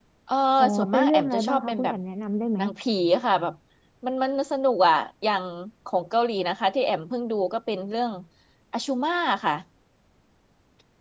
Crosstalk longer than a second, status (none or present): present